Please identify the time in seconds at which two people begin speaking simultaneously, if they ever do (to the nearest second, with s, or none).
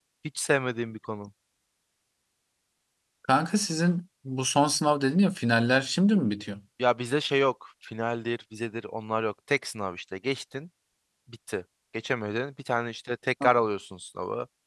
none